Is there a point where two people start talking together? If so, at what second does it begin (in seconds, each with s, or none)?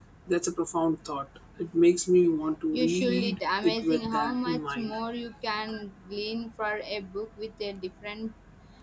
2.7 s